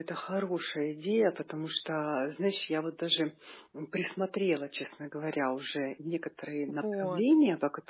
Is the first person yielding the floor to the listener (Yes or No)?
No